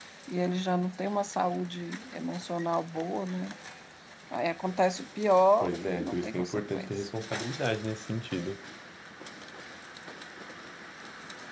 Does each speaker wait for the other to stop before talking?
No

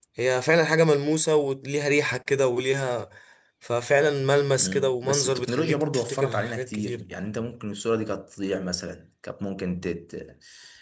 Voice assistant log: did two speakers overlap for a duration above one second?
Yes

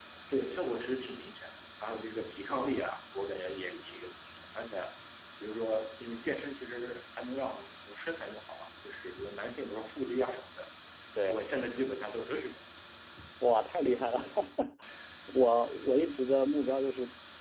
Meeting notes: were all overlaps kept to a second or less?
Yes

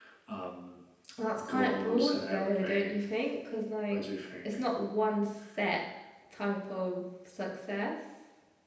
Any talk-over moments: Yes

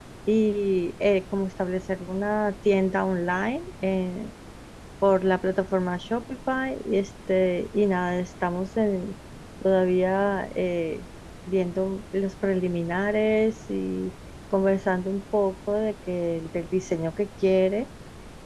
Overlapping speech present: No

